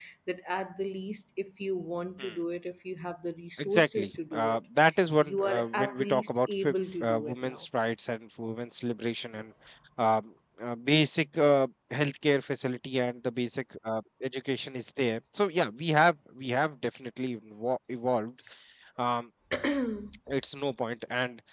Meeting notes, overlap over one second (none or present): present